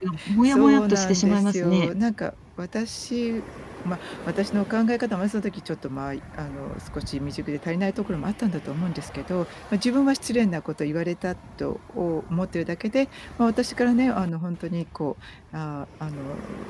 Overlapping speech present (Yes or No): Yes